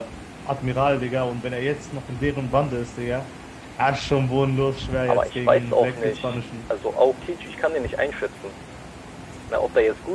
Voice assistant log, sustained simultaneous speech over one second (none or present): present